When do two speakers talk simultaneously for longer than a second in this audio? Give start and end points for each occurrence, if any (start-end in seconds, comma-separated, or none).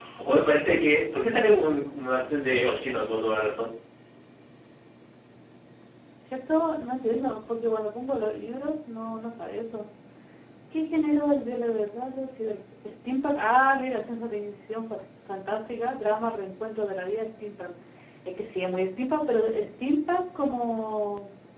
none